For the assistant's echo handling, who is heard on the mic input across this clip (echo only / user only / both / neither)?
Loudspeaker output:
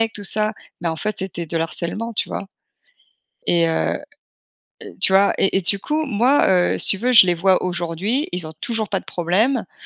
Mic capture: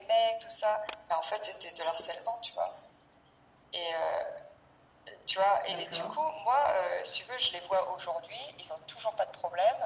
both